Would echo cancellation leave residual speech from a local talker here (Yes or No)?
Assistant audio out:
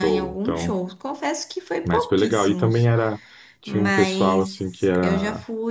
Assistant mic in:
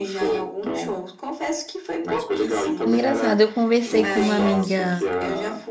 Yes